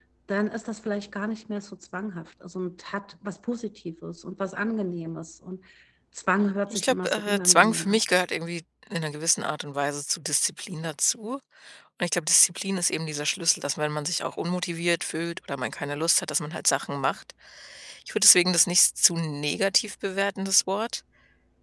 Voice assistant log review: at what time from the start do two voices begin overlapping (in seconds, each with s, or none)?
6.7 s